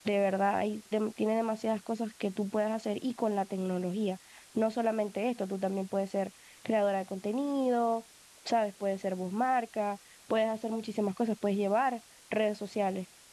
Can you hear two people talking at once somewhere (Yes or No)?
No